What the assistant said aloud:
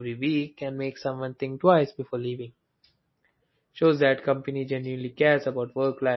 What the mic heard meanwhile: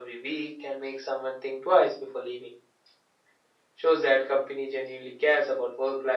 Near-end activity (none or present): none